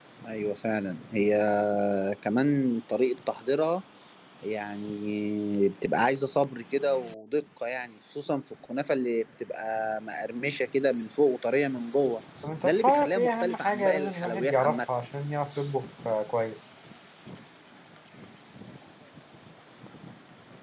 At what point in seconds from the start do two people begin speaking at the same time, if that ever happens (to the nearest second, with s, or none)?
13 s